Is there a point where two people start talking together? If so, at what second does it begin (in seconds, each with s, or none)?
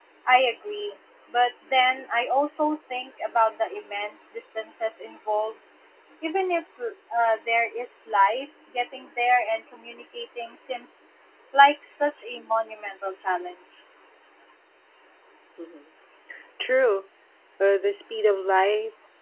none